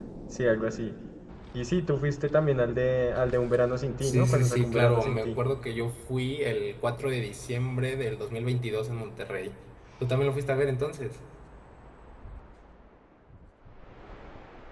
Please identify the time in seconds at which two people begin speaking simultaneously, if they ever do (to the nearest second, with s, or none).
4 s